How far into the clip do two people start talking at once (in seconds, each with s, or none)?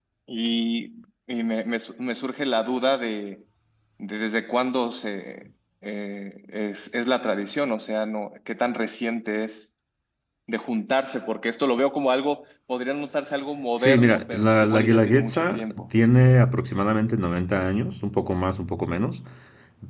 13.8 s